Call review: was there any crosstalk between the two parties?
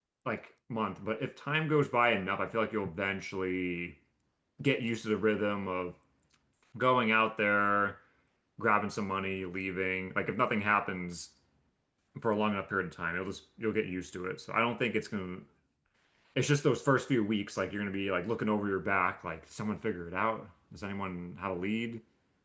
No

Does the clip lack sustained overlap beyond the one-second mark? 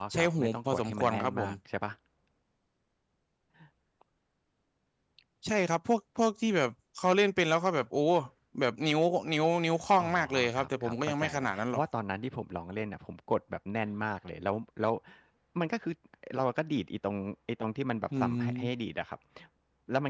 No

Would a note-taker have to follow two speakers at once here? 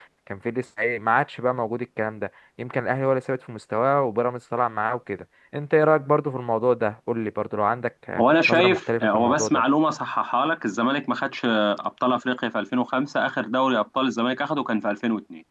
Yes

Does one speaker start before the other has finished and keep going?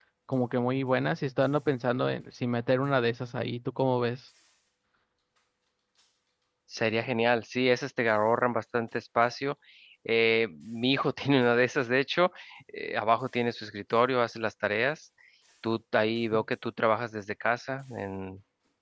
No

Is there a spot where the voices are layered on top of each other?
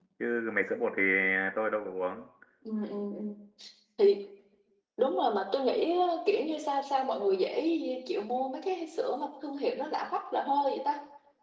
No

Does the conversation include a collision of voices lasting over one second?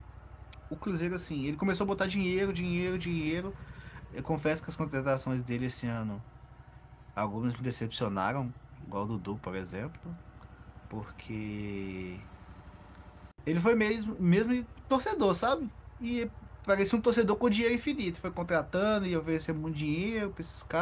No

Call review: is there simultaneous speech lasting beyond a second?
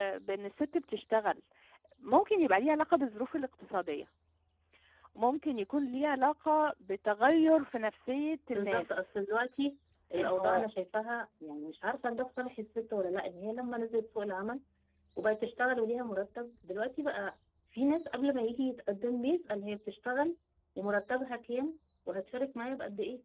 No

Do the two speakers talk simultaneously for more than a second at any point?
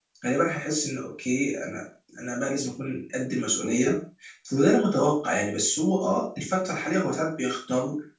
No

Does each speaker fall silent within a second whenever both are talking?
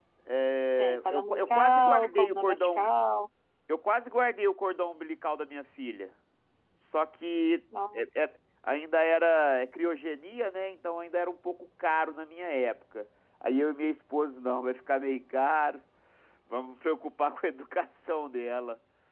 No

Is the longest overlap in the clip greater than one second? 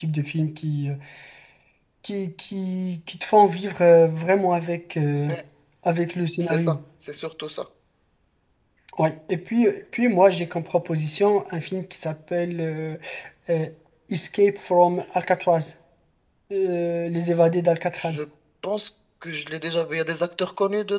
No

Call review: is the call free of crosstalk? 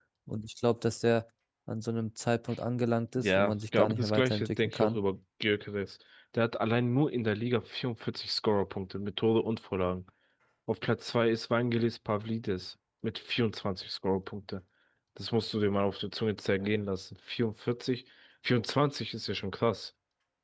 No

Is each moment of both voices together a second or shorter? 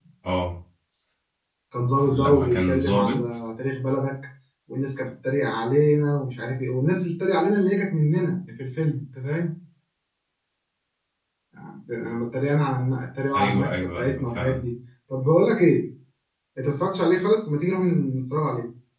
No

